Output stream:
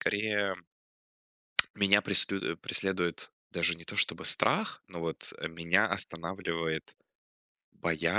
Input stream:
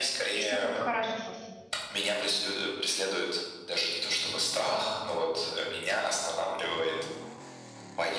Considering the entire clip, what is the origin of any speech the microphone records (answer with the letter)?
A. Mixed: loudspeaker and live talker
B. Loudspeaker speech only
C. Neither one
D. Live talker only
A